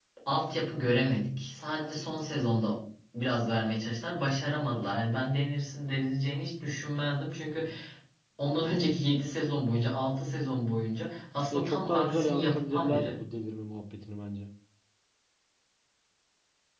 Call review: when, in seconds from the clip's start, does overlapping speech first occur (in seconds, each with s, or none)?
11.5 s